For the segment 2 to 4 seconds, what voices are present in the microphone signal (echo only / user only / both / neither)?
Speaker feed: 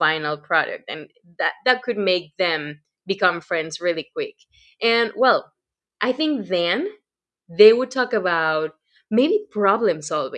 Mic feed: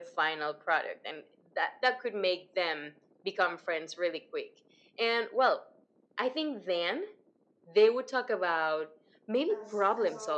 echo only